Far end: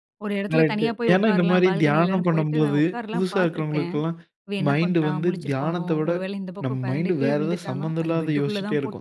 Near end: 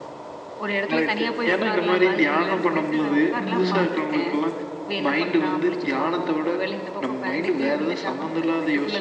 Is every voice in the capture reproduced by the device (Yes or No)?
No